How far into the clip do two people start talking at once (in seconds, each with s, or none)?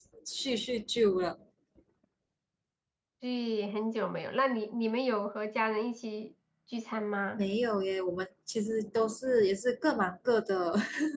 none